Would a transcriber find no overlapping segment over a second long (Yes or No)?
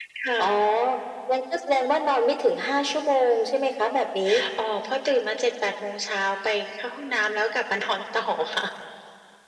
Yes